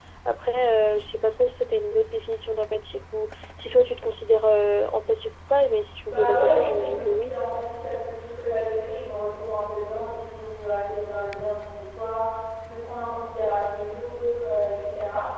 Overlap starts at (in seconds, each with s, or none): 6.0 s